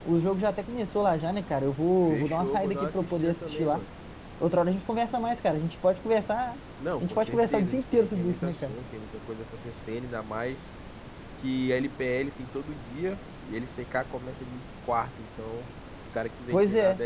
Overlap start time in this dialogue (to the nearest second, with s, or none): 2 s